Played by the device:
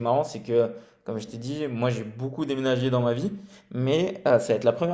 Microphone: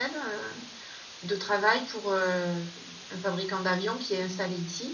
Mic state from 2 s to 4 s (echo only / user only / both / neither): user only